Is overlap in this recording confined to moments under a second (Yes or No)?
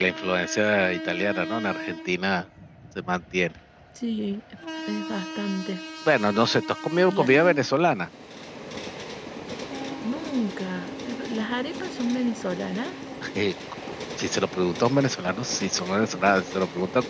Yes